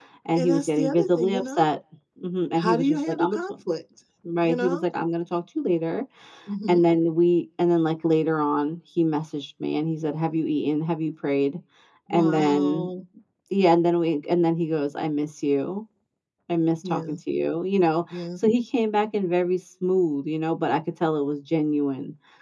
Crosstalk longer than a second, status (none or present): present